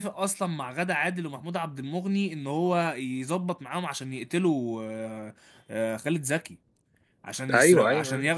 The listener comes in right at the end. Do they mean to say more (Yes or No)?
No